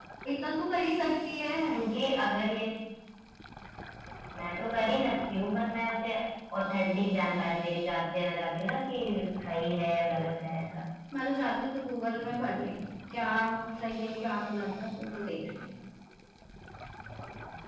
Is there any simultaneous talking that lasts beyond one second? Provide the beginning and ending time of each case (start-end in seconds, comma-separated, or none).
none